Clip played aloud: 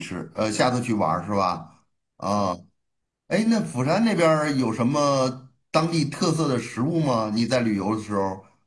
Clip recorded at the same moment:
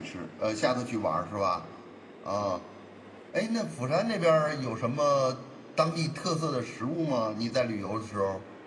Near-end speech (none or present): none